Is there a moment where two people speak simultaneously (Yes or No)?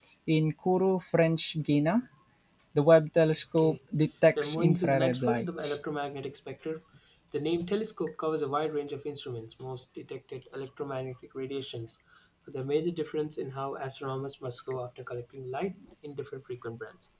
Yes